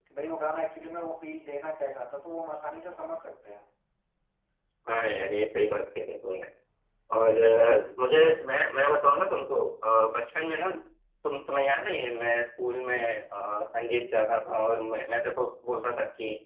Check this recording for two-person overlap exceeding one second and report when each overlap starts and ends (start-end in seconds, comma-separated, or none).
none